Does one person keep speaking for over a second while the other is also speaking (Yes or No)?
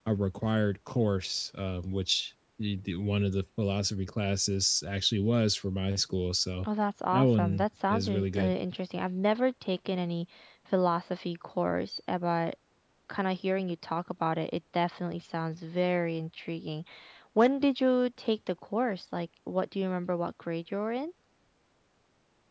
Yes